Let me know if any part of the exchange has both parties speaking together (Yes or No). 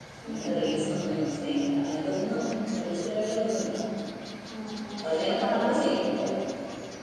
Yes